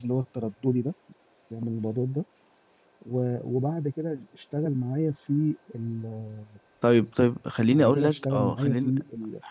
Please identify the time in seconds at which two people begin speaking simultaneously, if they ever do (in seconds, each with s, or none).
7.7 s